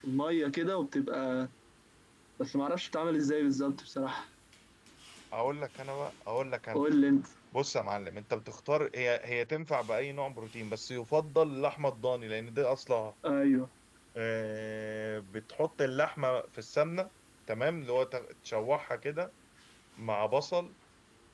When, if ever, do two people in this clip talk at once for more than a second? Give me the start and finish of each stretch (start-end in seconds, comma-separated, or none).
none